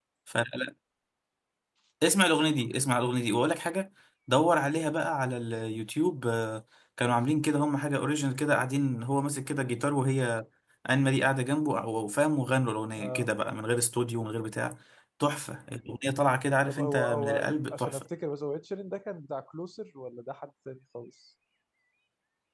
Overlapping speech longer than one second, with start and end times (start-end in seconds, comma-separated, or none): 16.7-18.1